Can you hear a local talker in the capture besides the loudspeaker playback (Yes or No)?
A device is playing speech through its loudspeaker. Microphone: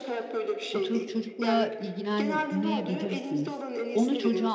Yes